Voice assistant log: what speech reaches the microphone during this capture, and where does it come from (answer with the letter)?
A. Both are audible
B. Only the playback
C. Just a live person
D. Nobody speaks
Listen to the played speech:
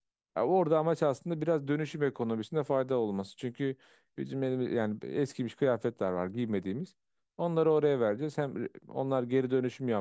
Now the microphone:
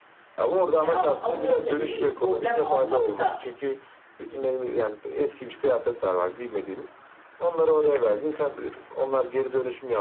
A